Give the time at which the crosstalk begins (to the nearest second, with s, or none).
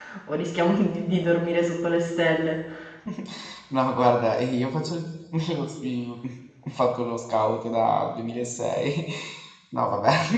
none